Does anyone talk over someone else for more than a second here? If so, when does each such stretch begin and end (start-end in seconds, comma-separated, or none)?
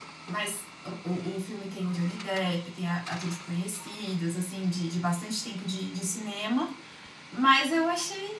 none